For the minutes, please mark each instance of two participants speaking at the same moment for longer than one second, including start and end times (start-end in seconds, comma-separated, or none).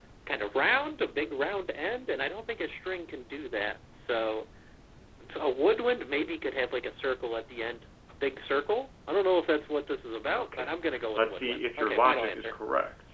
11.2-12.5